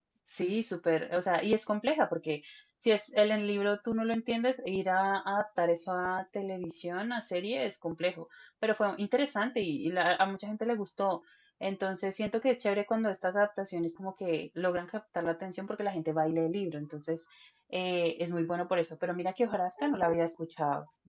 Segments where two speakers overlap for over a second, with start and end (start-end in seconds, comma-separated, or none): none